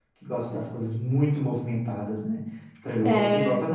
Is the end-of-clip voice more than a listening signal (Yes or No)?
No